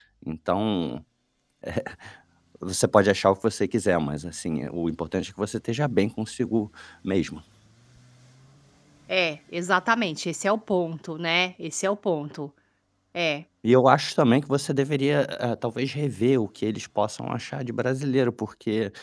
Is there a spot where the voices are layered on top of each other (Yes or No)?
No